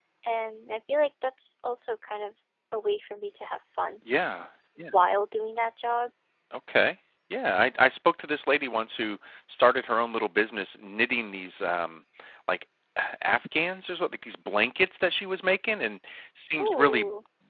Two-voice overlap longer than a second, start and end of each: none

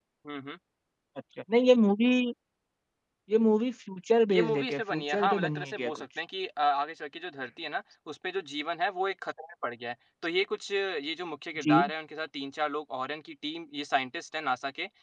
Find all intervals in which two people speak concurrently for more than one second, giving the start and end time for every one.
4.3-6.0

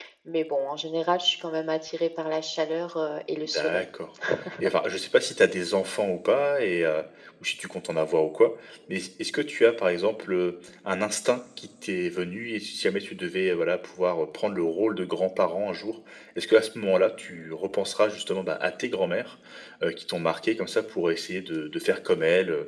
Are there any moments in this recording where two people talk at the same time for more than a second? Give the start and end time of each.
none

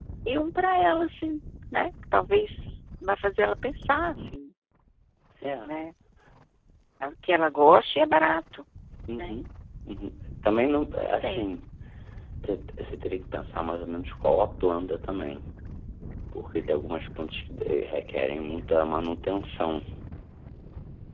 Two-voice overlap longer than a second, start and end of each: none

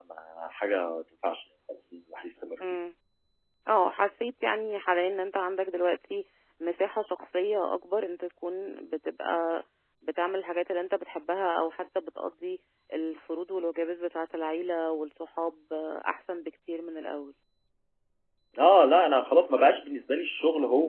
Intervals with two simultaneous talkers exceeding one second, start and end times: none

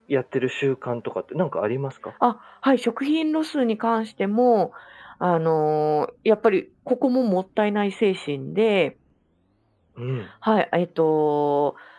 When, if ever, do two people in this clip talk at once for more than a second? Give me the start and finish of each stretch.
none

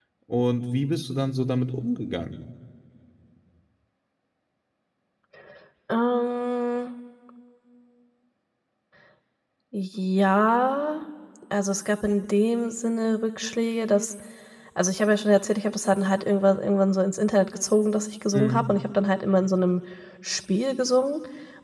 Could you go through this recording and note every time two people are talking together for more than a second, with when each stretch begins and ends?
none

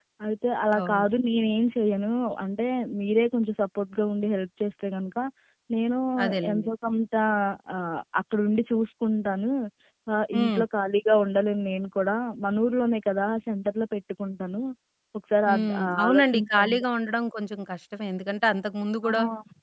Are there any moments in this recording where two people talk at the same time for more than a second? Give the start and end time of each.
15.5-16.8

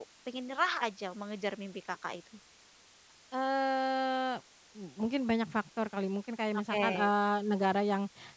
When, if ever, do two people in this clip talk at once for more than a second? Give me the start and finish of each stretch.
none

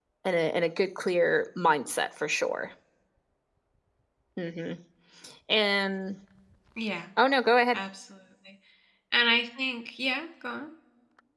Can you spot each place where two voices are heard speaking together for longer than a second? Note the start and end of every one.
none

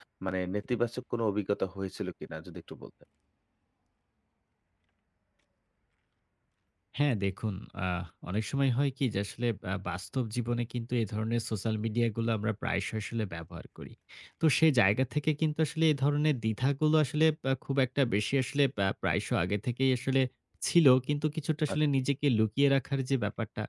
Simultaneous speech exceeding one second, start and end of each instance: none

